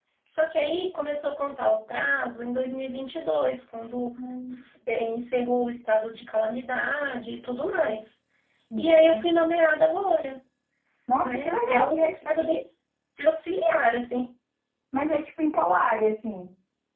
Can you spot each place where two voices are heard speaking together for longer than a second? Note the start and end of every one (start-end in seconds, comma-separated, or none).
11.2-12.6